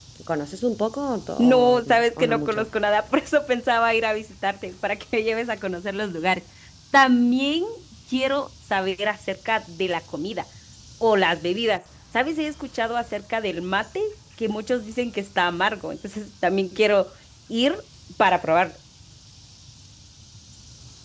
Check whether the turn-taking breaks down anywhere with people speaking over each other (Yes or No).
Yes